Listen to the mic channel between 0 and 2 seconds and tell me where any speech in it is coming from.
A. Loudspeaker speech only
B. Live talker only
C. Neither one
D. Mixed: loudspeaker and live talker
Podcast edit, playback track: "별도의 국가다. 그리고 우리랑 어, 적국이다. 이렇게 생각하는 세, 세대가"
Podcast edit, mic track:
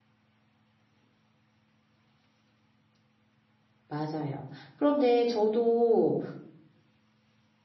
C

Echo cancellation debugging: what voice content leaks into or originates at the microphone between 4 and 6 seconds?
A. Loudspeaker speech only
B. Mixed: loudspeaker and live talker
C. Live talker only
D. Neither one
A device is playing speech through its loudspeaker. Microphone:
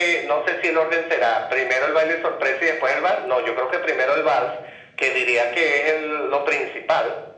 A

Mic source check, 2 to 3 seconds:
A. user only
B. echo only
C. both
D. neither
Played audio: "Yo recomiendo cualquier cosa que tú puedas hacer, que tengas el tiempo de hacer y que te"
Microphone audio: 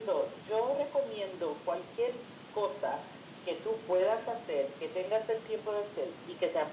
B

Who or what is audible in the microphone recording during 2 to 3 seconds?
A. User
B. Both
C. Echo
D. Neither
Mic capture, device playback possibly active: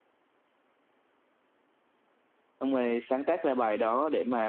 A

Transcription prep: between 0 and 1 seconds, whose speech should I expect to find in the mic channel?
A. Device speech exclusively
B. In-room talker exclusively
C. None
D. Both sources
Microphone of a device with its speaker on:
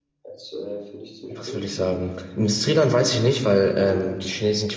A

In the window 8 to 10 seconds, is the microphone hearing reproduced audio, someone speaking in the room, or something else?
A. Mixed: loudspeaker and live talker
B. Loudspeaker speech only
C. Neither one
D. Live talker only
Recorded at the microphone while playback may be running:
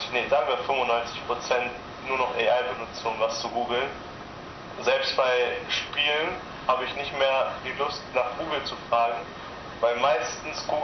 B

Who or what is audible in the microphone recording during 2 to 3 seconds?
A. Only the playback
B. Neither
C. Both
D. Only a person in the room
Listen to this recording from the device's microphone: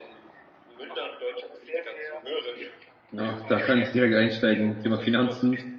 A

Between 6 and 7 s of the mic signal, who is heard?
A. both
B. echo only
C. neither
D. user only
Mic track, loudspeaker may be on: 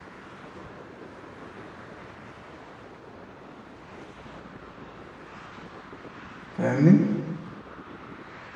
D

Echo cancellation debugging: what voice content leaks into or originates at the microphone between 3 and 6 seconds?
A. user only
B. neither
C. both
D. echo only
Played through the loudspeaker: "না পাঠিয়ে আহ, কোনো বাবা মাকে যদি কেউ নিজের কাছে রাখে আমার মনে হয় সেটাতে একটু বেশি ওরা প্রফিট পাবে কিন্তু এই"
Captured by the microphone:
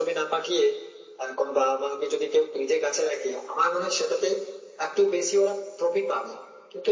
D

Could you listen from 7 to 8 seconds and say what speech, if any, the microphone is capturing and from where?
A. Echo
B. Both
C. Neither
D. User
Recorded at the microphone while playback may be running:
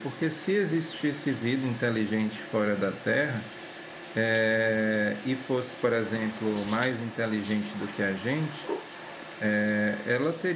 D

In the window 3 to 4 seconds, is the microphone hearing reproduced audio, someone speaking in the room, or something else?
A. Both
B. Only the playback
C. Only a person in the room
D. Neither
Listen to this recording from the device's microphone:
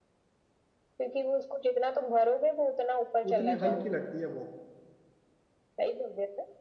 A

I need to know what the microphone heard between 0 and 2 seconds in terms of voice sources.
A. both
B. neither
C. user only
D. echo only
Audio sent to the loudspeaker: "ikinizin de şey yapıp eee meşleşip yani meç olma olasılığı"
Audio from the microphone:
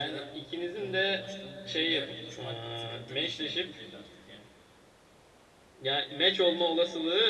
A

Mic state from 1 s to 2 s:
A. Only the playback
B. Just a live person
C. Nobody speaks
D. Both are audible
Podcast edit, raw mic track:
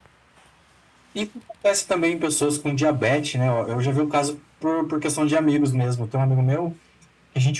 A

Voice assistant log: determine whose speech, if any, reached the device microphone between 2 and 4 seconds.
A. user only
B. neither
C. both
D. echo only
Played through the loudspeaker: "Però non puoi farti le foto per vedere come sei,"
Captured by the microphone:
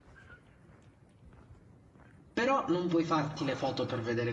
D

